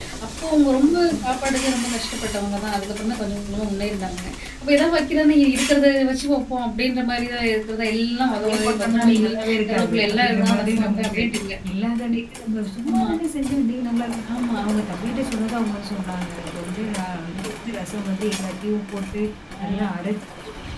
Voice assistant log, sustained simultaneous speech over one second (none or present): present